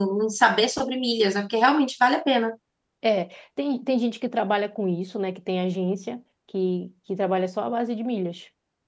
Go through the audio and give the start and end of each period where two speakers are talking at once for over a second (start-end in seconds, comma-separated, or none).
none